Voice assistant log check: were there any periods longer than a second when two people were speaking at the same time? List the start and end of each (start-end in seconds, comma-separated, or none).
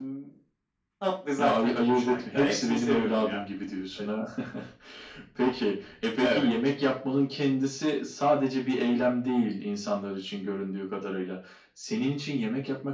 1.4-3.4